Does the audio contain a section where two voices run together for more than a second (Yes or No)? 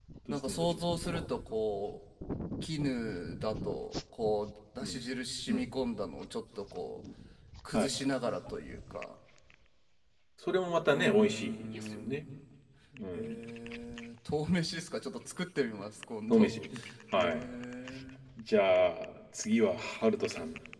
Yes